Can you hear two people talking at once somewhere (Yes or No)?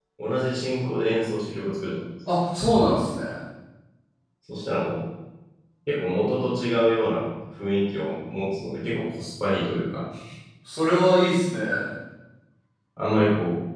No